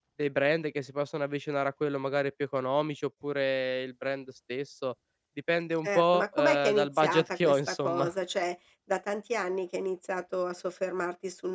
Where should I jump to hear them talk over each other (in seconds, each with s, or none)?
5.8 s